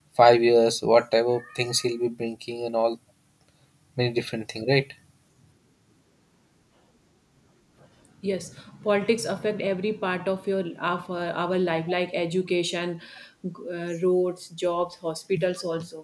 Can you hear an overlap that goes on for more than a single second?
No

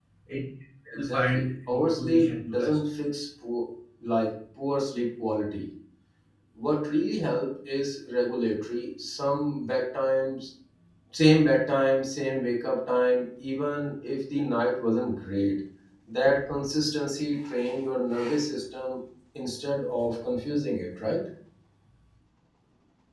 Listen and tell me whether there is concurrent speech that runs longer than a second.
Yes, from 0.9 s

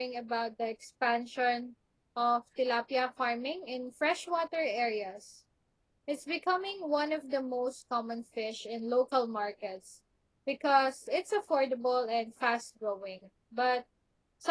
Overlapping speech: No

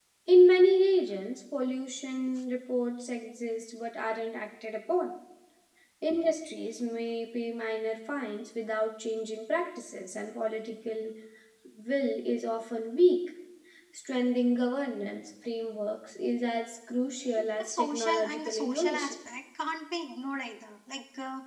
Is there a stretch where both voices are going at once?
Yes, from 17.4 s

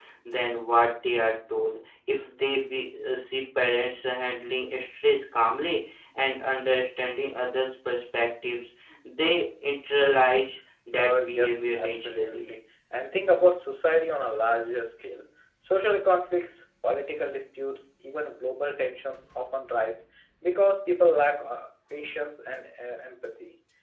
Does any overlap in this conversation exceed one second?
Yes, from 10.9 s

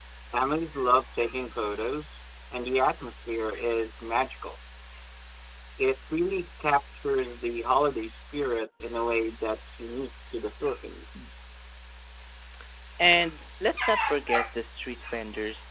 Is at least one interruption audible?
No

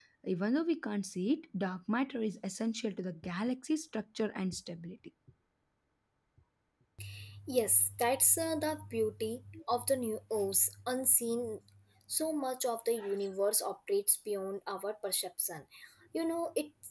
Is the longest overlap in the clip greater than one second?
No

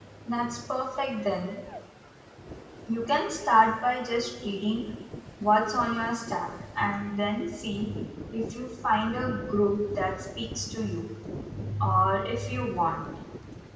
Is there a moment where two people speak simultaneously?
No

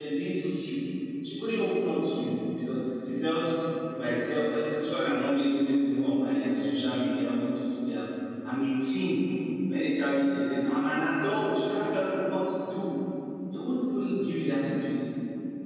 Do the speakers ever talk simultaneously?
No

